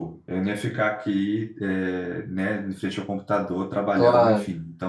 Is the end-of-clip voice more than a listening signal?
No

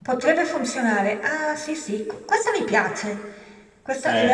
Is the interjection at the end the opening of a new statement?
No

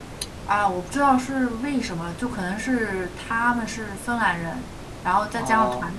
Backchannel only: Yes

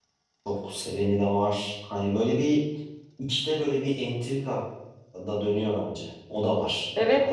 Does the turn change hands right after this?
Yes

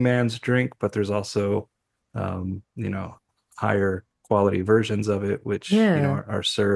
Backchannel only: Yes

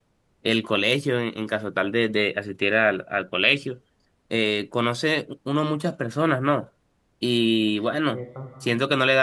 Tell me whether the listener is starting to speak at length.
No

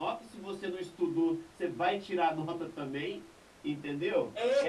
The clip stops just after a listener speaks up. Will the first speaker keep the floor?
No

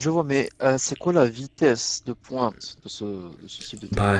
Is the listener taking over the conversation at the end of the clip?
Yes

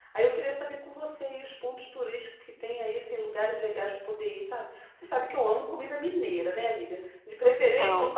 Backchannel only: Yes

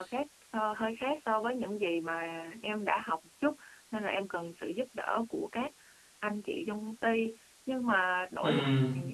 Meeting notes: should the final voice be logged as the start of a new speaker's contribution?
No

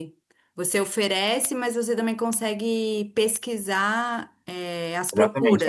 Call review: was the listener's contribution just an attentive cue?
No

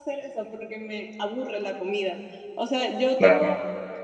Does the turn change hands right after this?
No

